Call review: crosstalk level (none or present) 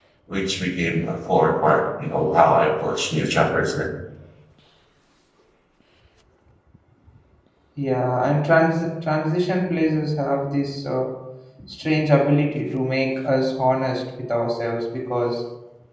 none